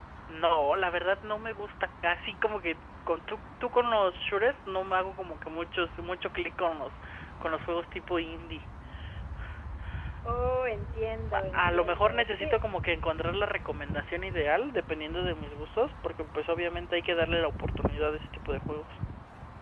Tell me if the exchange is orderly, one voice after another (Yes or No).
No